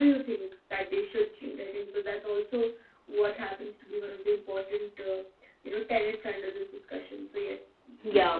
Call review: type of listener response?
taking over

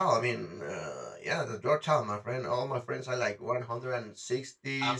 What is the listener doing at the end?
listening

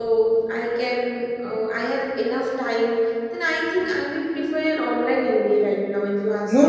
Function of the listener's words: taking over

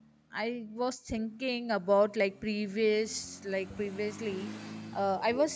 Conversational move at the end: listening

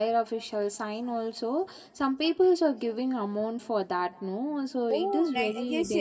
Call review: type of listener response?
taking over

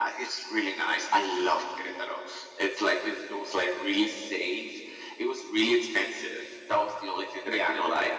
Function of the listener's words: listening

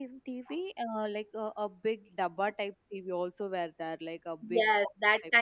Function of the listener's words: taking over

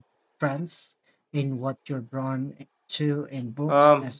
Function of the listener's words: taking over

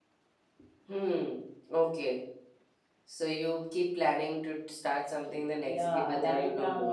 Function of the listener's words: taking over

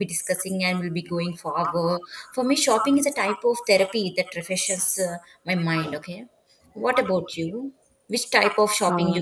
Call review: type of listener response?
listening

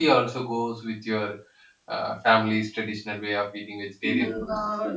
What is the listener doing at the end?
taking over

